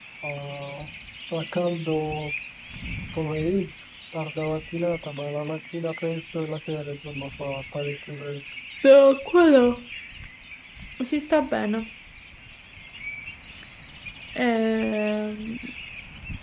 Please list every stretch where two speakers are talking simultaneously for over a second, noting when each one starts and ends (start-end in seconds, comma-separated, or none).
none